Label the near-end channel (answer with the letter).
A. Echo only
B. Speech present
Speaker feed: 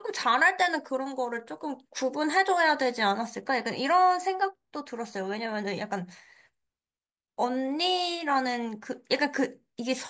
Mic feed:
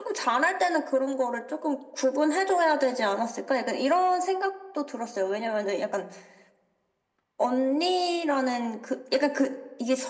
A